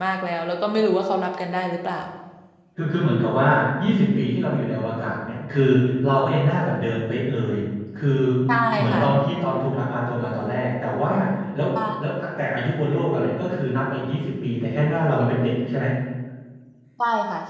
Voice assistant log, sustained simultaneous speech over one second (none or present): none